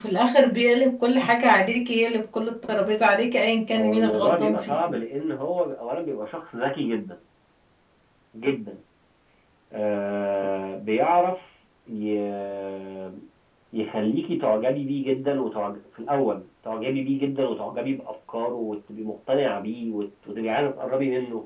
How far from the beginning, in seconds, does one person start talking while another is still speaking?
3.8 s

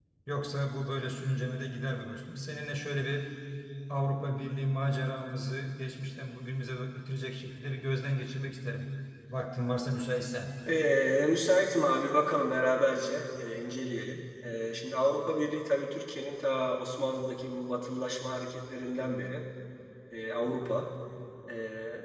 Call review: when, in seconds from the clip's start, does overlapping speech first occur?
none

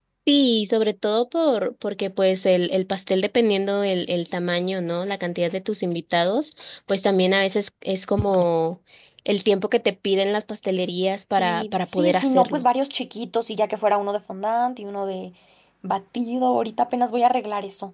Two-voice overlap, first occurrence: 11.3 s

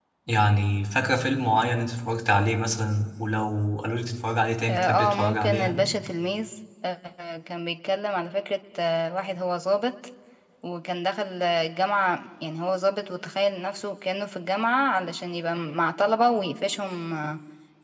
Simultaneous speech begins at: 4.6 s

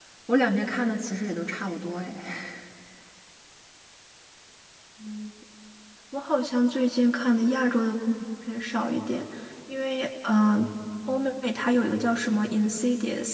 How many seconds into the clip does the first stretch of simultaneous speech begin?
none

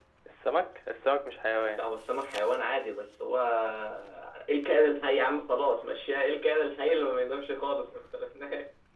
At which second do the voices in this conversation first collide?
none

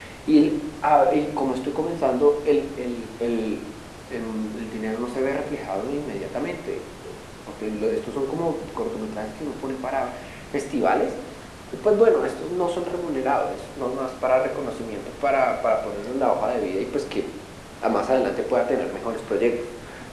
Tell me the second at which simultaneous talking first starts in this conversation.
none

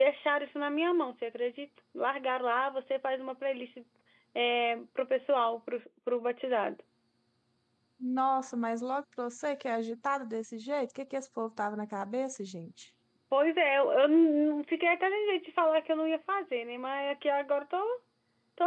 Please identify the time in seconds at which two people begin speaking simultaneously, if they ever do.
none

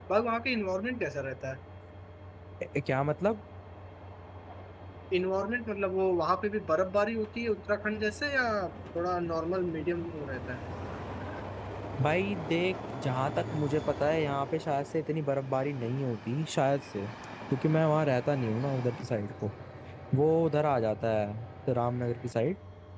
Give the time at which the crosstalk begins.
none

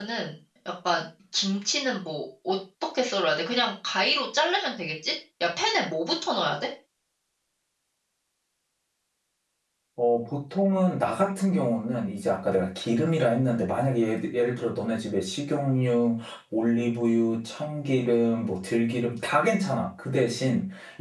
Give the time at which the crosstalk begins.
none

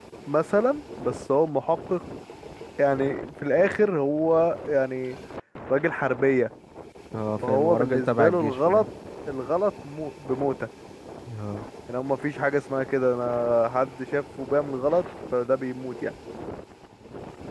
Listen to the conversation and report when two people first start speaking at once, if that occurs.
7.5 s

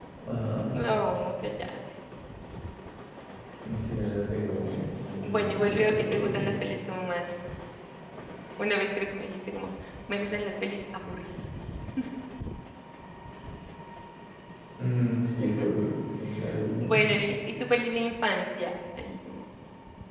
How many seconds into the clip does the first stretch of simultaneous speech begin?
5.2 s

